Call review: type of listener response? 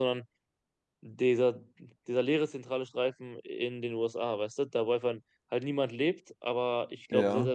listening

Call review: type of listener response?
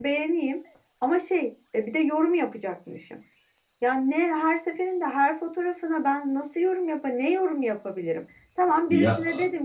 listening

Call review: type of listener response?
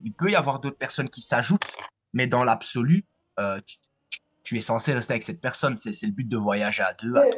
taking over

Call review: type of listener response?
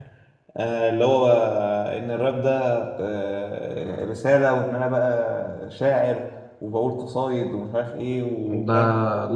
taking over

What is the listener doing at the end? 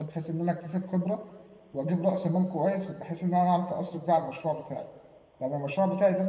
listening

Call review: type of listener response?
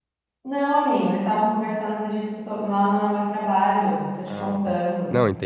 taking over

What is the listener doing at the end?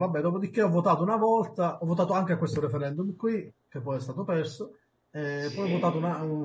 listening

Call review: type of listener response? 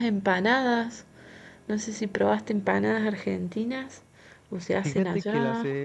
taking over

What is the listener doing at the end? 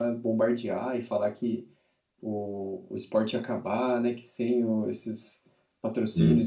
listening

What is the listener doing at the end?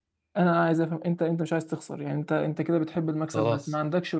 listening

